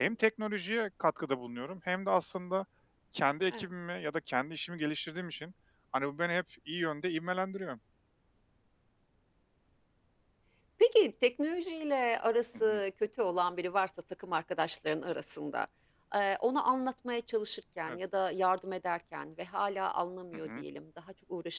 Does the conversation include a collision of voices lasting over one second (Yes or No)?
No